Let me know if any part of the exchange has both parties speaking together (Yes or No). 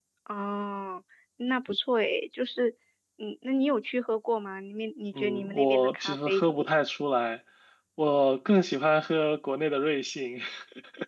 Yes